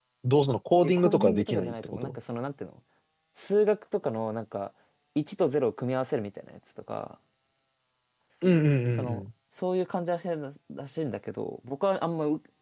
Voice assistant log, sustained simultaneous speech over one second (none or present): present